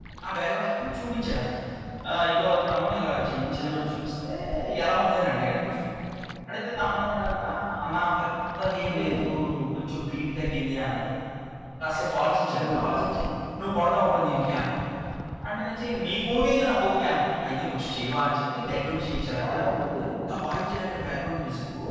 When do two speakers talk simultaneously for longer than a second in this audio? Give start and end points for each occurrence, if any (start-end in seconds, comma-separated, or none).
none